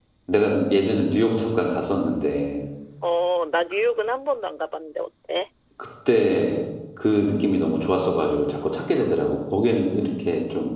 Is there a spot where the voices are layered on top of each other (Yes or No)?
No